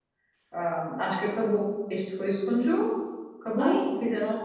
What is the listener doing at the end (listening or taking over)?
listening